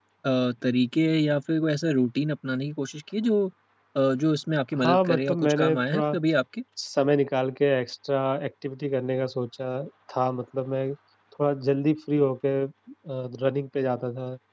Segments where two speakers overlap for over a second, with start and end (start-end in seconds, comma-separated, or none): 4.8-6.2